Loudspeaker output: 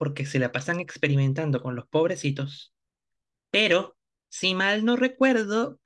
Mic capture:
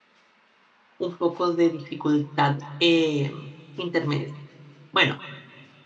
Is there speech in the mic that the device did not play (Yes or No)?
Yes